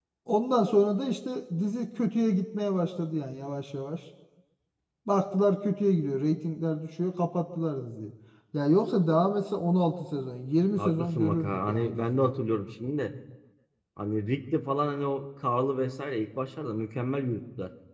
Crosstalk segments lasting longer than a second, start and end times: 10.8-12.3

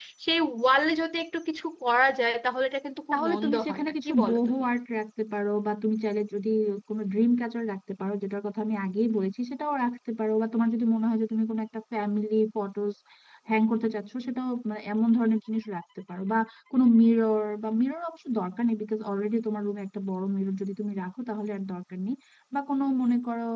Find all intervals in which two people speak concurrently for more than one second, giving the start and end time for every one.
3.1-4.7

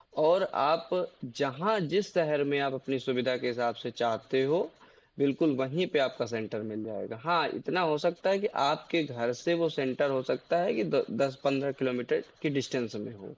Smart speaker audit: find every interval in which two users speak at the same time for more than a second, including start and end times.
none

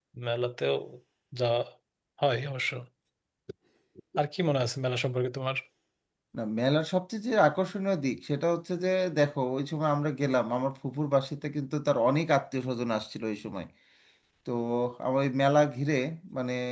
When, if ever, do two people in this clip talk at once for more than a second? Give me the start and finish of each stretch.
none

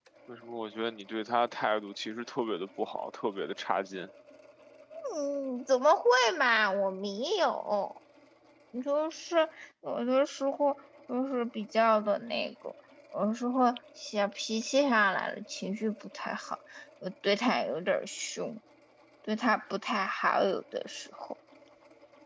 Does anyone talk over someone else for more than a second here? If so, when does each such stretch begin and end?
none

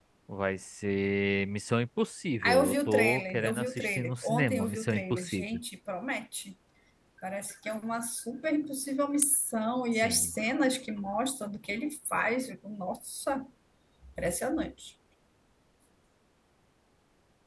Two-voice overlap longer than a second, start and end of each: 2.4-5.6

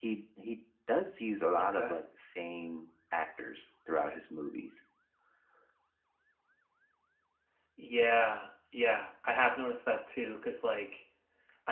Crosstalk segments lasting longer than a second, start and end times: none

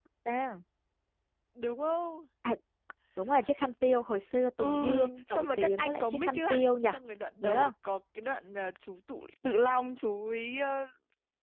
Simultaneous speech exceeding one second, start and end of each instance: 5.3-6.7

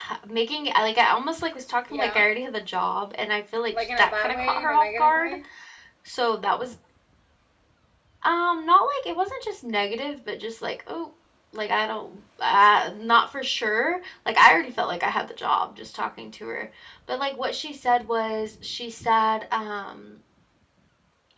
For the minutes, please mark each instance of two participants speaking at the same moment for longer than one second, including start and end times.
3.7-5.4

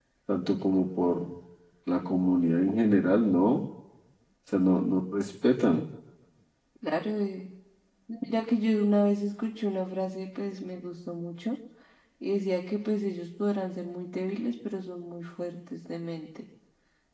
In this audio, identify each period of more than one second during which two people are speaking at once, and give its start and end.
none

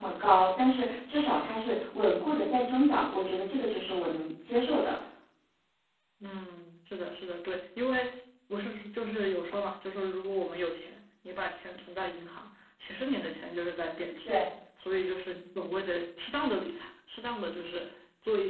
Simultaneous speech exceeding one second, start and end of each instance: none

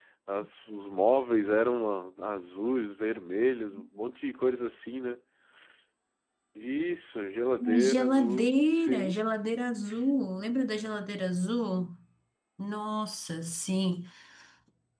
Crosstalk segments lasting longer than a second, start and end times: 7.7-9.2

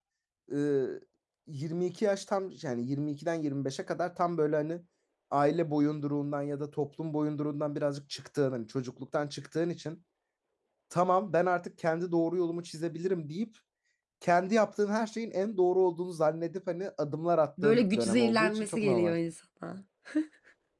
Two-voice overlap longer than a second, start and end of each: 17.6-19.1

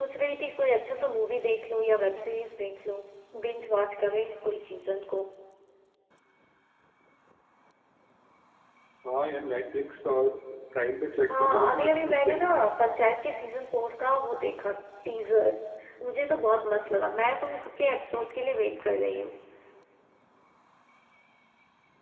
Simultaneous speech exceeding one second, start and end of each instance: 11.3-12.5

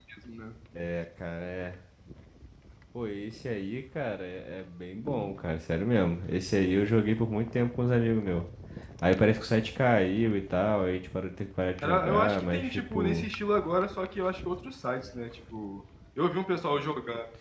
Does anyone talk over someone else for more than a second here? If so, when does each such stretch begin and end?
11.8-13.3

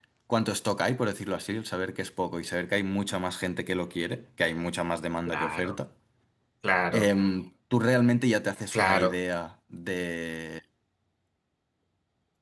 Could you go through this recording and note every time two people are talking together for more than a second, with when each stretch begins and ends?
none

